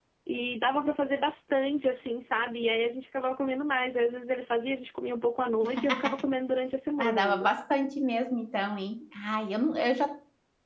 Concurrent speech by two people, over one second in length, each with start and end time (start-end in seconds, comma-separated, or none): none